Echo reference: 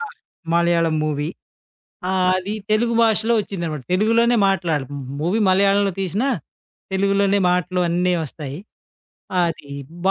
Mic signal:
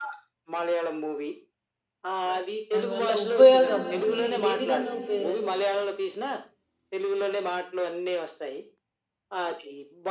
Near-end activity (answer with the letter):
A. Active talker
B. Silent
A